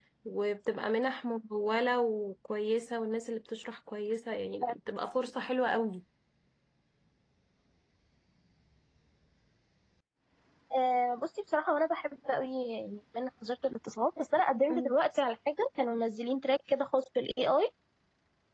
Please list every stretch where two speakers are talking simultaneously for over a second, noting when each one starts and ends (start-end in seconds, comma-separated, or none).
none